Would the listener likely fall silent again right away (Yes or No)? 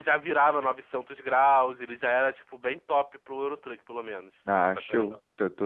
No